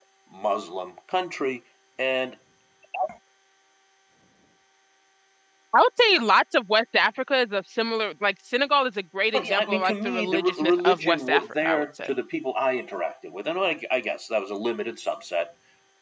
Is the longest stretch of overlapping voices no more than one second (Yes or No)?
No